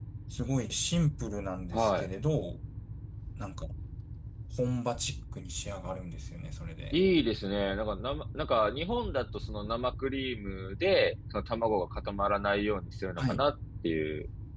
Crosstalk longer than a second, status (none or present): none